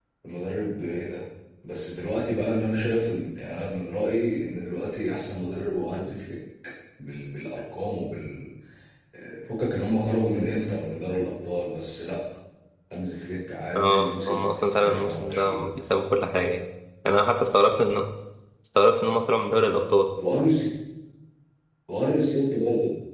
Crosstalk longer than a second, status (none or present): present